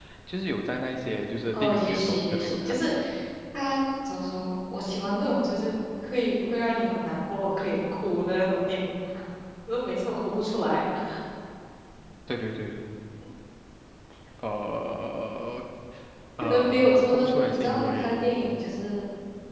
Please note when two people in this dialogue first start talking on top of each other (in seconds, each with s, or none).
1.5 s